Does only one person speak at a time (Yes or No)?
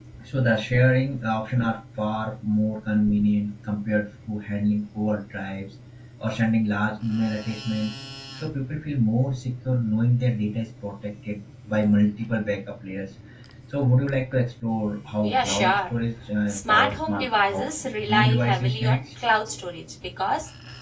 No